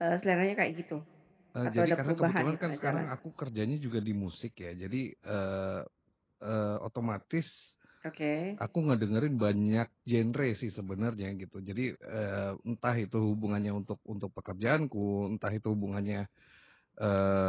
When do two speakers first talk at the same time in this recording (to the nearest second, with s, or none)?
2 s